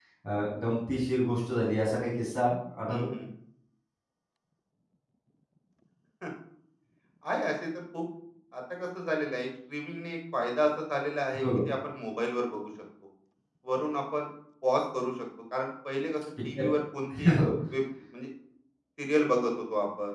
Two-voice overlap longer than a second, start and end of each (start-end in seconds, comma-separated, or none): none